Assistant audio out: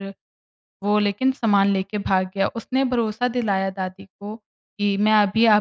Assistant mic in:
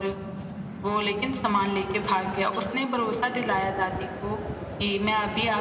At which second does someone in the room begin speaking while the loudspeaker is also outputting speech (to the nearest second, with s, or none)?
none